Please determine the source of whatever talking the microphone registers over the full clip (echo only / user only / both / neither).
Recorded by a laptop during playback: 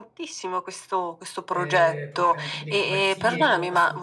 both